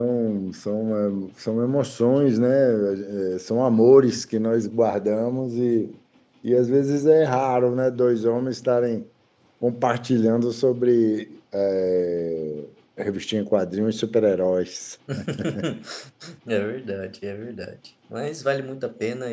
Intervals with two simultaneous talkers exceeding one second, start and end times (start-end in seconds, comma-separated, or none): none